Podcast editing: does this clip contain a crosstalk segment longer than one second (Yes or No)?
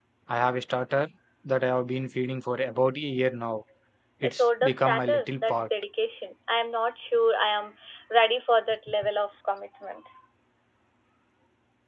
Yes